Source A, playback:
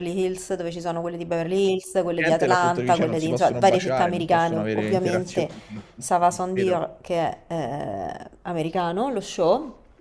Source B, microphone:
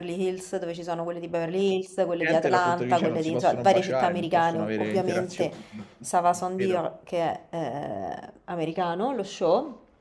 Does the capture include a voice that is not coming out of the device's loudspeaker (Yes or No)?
No